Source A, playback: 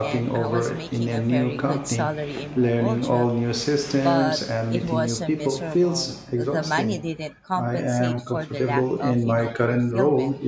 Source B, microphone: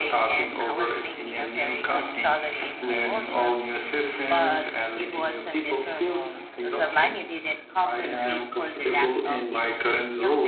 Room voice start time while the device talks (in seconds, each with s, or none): none